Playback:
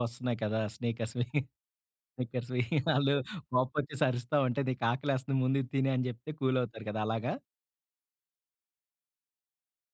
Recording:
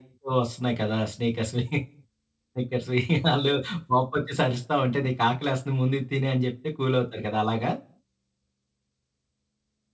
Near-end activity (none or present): none